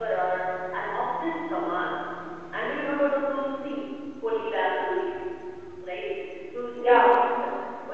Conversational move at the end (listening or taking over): listening